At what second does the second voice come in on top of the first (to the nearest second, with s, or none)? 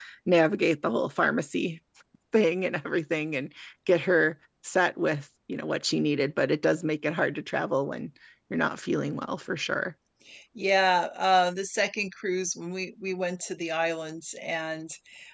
none